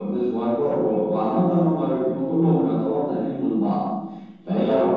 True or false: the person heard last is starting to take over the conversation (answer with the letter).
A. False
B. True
A